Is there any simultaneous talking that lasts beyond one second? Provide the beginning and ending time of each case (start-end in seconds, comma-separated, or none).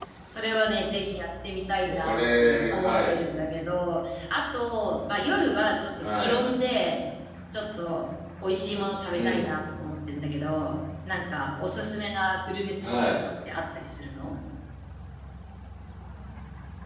1.8-3.2